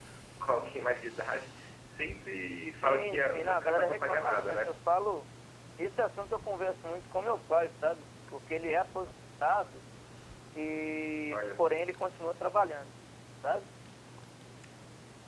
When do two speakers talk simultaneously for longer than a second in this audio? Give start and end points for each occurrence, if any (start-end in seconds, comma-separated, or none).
2.8-4.8